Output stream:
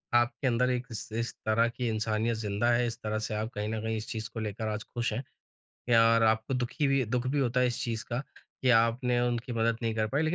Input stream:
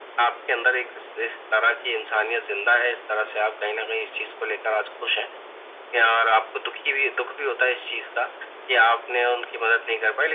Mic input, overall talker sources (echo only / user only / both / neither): echo only